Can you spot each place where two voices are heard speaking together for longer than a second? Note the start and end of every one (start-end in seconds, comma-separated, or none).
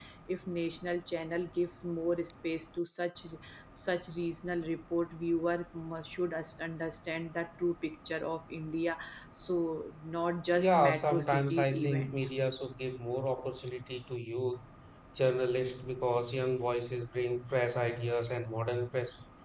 10.6-12.3